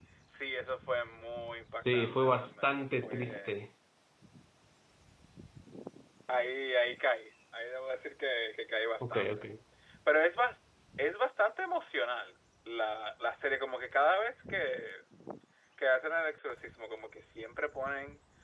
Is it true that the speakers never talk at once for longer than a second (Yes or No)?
No